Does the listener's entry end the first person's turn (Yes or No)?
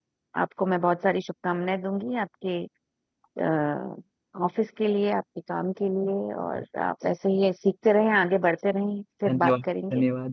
Yes